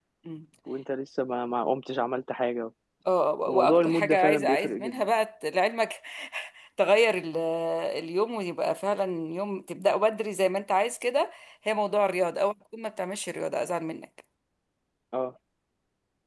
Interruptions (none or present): present